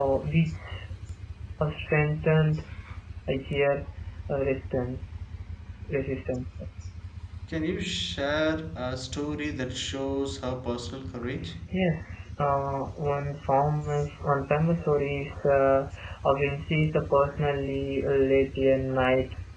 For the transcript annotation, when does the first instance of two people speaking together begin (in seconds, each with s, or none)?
none